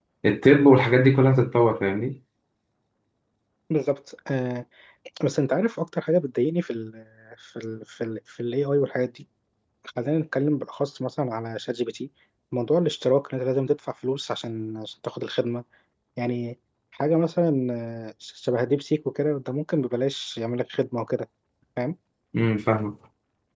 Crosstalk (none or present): none